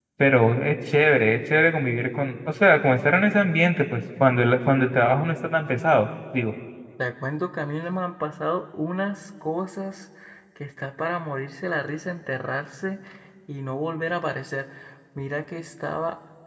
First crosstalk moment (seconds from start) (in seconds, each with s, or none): none